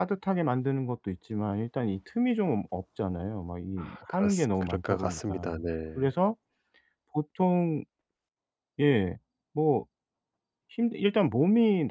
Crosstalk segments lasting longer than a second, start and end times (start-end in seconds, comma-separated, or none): 4.1-5.6